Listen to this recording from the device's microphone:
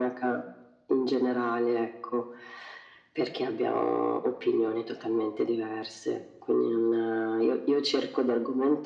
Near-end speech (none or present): none